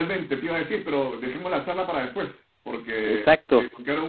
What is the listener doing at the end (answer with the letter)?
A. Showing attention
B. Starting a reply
A